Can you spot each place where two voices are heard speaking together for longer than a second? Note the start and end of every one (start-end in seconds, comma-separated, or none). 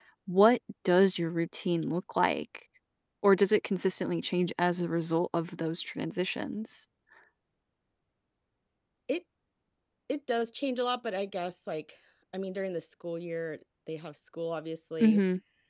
none